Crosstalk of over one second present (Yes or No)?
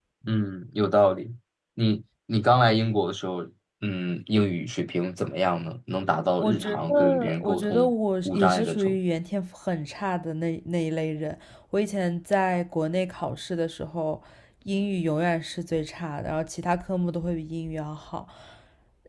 Yes